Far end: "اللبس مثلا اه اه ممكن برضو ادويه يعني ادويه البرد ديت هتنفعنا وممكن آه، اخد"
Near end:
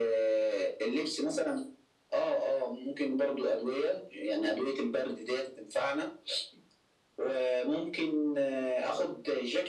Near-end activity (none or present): none